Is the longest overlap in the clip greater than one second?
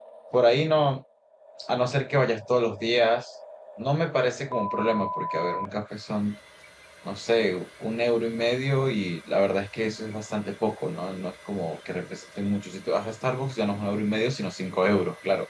No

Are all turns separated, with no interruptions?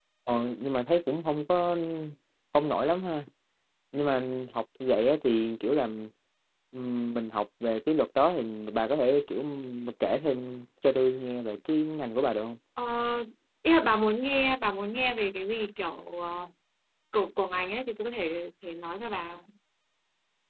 Yes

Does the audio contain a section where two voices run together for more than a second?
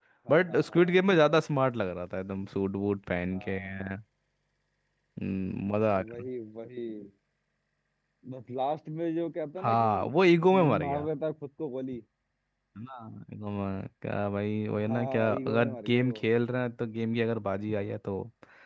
Yes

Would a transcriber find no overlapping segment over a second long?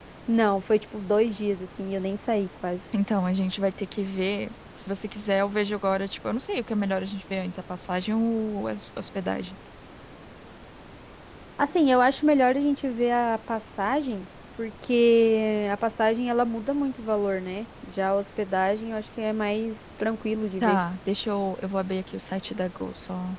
Yes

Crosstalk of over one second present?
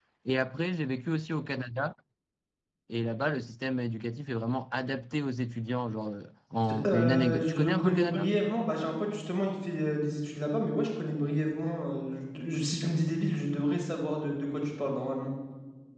Yes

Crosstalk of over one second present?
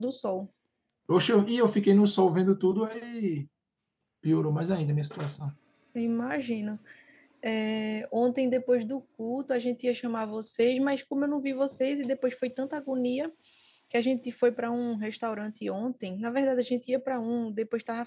No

